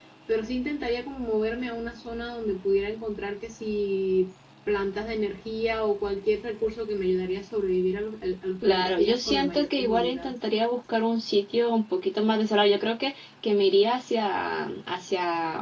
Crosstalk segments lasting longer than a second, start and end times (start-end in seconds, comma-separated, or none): 8.6-10.3